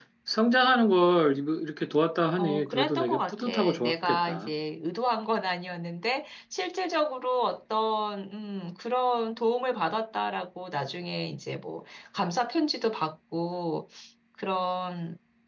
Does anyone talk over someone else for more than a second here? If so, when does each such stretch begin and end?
2.4-4.5

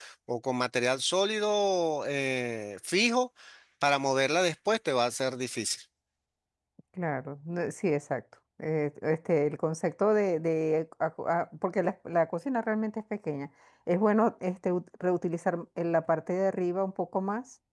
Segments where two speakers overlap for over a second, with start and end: none

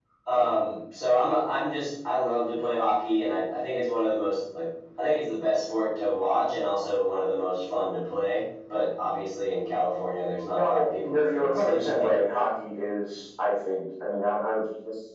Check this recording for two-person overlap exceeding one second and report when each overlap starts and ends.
10.5-12.2

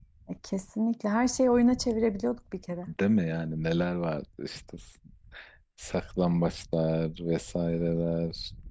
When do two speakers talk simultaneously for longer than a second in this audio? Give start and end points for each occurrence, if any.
none

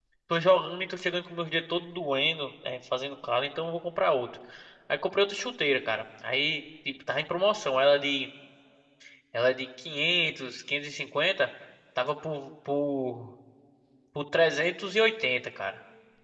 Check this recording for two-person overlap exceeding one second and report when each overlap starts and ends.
none

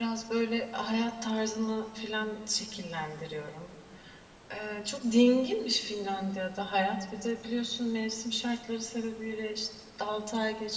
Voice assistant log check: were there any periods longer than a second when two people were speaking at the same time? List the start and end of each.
none

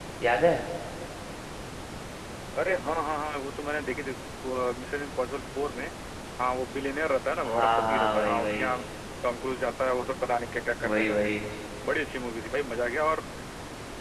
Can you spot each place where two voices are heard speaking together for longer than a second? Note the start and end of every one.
7.5-8.7

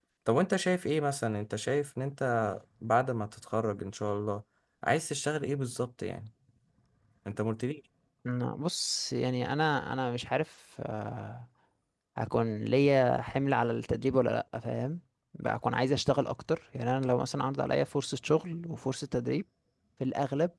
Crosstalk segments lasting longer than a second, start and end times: none

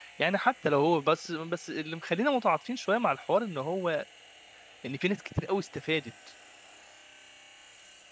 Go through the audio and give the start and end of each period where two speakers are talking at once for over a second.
none

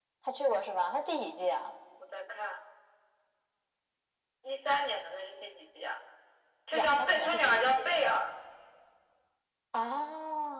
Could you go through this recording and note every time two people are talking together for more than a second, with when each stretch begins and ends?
6.7-8.0

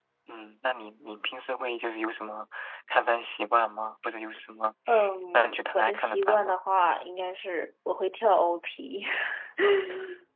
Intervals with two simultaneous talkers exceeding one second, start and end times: 5.3-6.5

